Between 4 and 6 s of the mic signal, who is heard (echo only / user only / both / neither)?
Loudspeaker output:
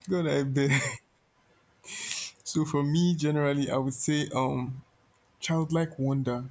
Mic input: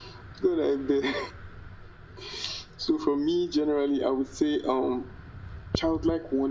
echo only